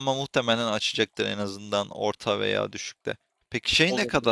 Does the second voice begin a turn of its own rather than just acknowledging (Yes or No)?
No